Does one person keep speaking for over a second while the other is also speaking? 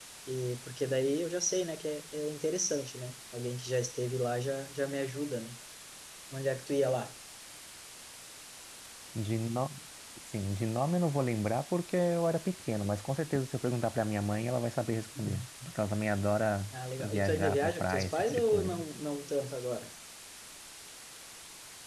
Yes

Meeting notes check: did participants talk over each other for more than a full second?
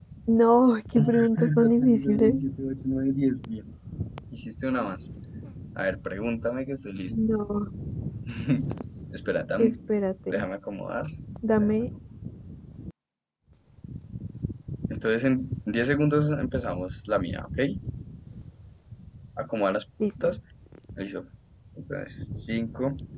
Yes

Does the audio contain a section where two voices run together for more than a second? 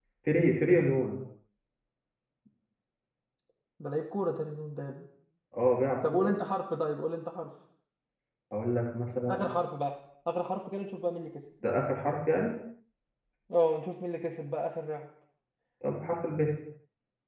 No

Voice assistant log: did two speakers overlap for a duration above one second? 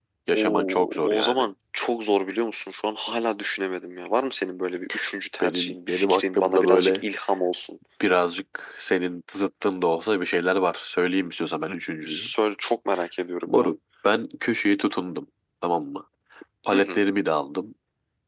Yes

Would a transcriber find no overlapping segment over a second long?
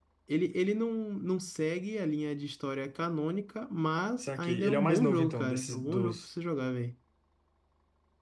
No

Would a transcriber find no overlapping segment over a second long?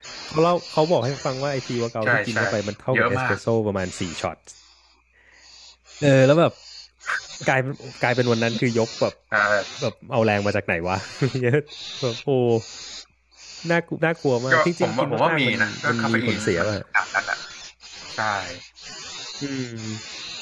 No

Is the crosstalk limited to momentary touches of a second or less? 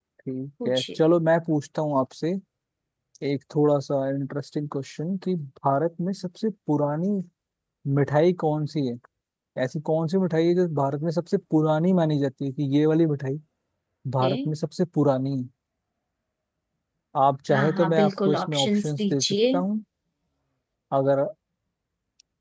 No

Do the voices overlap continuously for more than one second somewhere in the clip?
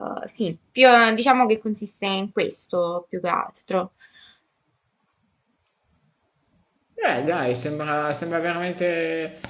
No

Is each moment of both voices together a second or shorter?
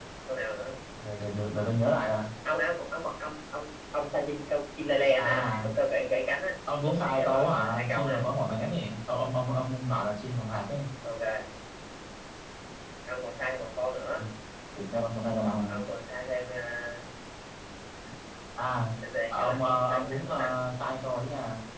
No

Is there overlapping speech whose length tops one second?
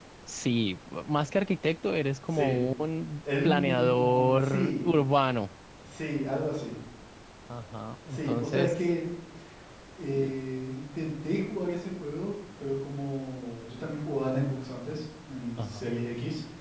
Yes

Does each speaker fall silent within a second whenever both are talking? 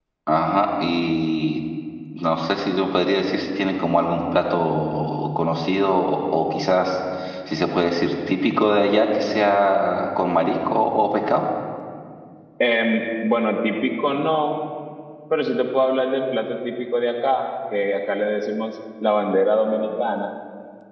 Yes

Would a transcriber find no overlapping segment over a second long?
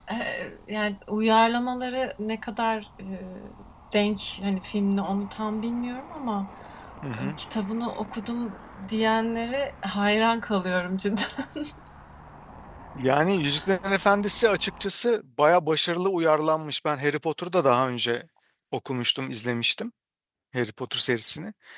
Yes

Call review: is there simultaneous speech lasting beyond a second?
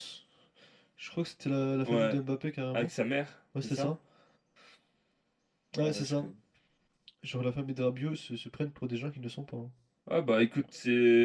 No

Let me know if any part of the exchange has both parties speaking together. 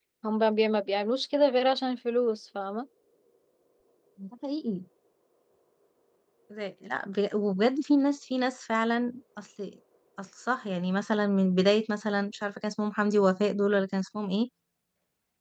No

